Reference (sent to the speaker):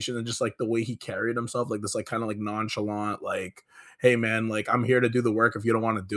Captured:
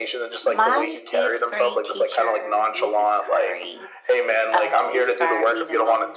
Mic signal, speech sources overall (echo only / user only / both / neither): both